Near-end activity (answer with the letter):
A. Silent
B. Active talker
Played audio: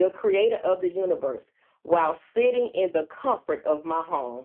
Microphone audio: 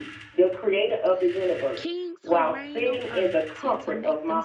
B